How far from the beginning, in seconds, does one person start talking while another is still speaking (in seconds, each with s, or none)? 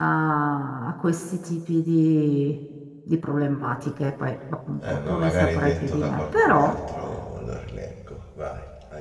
4.8 s